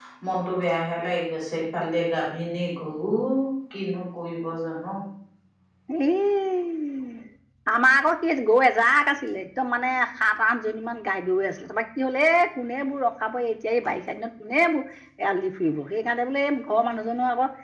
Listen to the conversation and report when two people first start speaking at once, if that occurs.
none

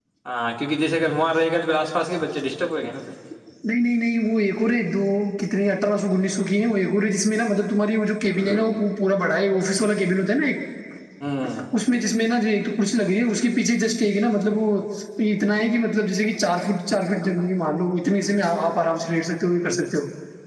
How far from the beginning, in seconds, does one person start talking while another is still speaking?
none

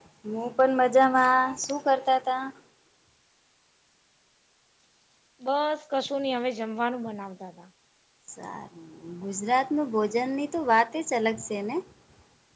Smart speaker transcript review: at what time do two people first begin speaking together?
none

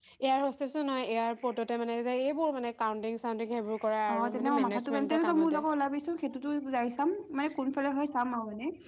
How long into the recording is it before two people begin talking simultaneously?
4 s

